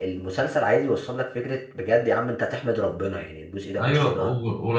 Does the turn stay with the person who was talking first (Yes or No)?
No